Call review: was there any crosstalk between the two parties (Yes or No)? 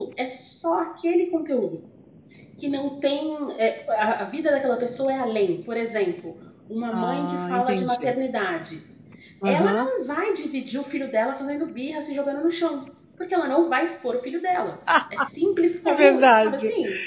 Yes